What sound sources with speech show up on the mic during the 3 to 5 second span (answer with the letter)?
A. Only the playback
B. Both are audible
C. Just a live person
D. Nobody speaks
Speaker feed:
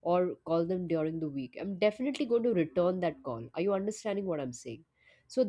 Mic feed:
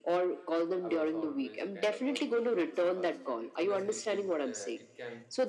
B